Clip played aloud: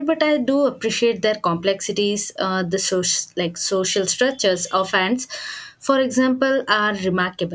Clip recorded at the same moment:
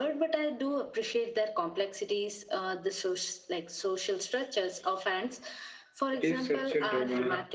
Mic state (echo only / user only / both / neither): both